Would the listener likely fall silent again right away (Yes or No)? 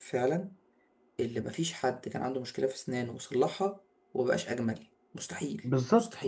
No